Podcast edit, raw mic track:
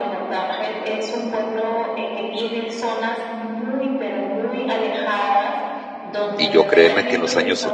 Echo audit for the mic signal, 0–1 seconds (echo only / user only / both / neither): echo only